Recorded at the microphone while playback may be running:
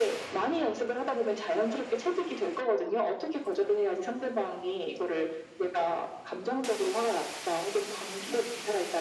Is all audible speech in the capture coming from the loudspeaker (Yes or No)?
Yes